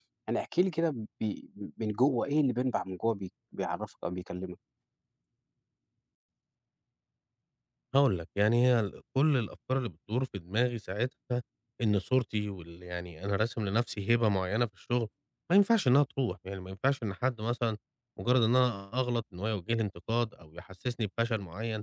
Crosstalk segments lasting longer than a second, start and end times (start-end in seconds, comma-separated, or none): none